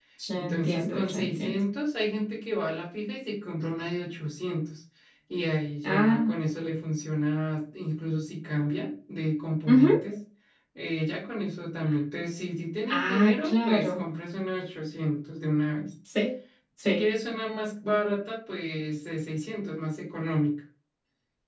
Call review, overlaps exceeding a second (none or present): present